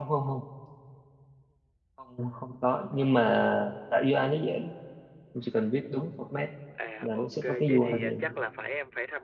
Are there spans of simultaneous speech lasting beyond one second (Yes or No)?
Yes